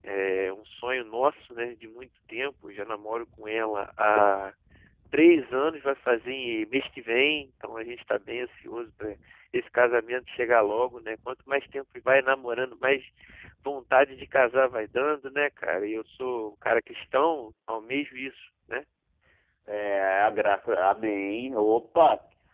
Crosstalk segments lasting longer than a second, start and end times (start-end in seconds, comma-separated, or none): none